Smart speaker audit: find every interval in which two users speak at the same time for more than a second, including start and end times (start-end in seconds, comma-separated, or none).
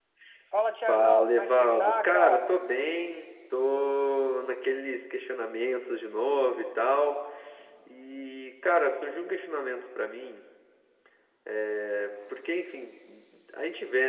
0.9-2.5